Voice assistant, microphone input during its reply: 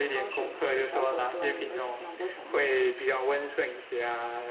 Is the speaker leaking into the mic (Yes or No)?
Yes